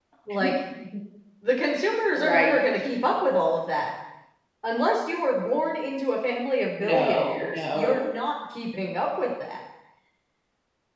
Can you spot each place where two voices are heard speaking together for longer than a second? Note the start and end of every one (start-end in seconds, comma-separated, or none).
6.9-8.1